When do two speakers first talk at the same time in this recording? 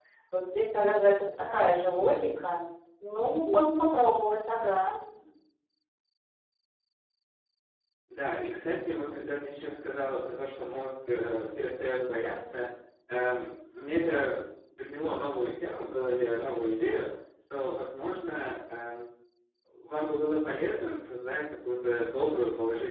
none

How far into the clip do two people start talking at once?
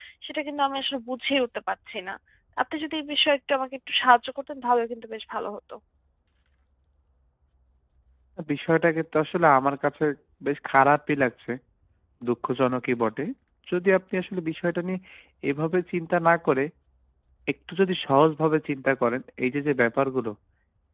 none

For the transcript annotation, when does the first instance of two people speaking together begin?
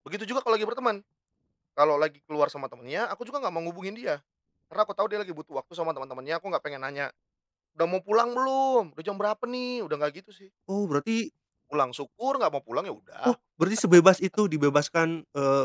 none

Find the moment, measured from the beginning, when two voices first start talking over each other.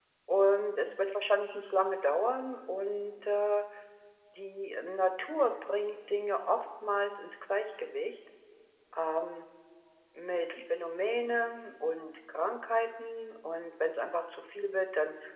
none

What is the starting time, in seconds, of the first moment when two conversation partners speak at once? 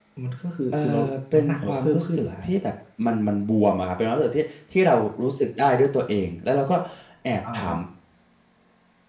0.7 s

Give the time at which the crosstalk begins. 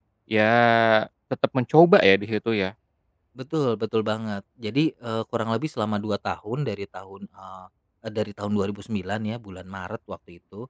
none

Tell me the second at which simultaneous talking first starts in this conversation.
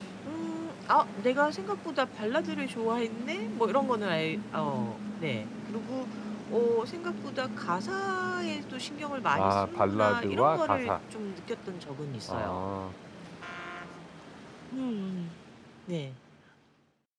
9.3 s

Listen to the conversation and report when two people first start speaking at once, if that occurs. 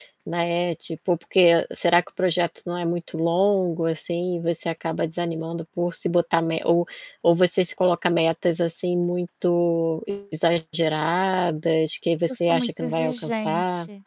12.3 s

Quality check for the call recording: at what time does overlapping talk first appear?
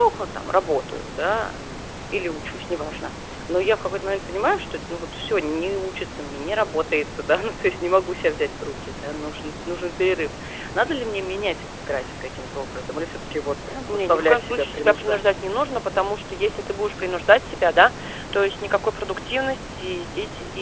13.9 s

